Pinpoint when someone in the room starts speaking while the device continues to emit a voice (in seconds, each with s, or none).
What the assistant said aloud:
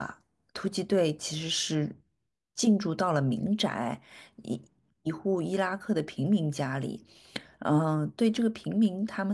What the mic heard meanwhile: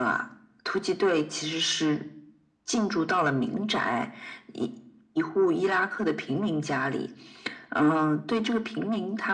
none